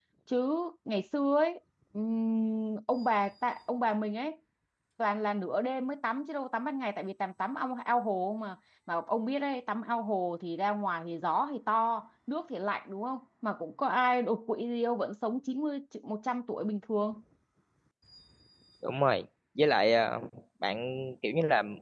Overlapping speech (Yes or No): No